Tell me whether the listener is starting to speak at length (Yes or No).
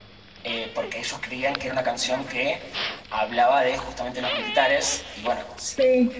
No